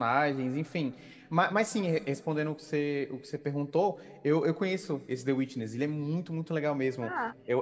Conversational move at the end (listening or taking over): listening